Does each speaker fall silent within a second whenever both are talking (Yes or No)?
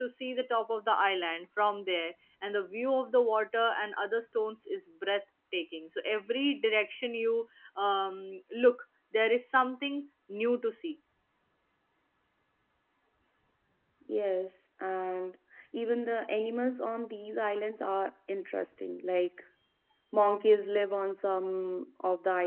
Yes